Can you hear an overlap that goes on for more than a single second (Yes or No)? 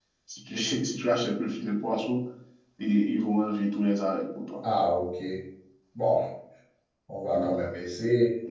No